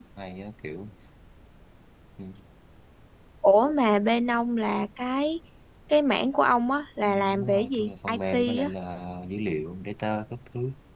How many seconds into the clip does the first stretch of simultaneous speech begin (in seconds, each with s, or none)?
7.0 s